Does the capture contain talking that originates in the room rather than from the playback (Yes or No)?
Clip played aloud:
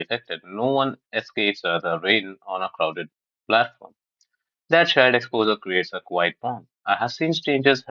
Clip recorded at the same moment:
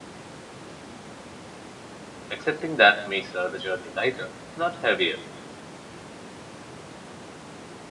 Yes